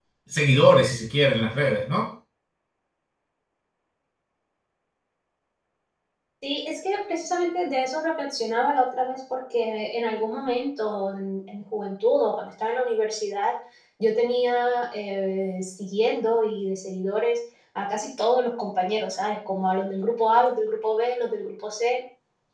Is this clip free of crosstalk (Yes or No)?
Yes